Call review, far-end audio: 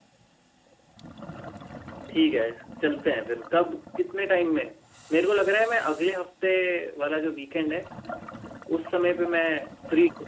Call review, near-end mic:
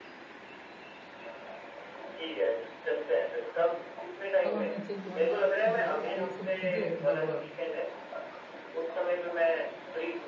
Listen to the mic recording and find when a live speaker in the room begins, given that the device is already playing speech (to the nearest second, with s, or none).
4 s